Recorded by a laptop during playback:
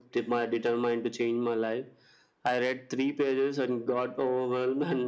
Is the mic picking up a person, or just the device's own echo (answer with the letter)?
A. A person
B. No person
B